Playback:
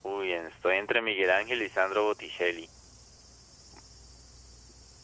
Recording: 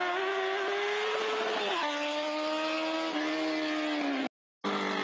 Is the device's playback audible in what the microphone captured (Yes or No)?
No